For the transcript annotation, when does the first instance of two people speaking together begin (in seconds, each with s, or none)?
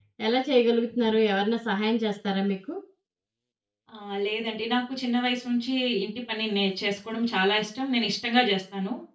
none